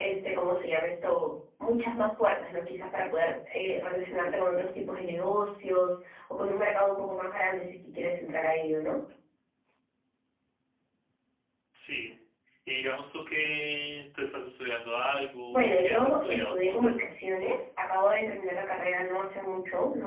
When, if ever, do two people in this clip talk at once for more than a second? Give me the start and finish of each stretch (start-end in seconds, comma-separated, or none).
15.5-16.9